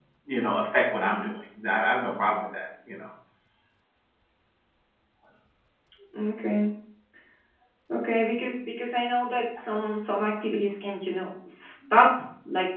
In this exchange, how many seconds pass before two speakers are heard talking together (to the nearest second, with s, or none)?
none